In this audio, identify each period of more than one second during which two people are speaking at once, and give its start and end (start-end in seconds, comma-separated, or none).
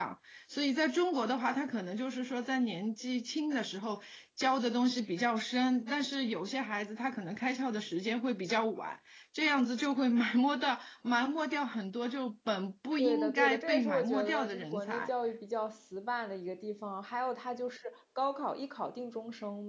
13.0-15.1